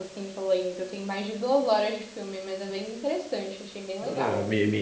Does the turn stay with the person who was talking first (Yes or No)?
No